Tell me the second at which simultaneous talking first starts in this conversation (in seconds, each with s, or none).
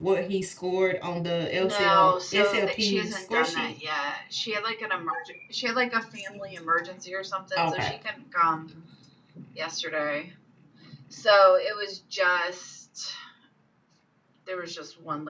1.6 s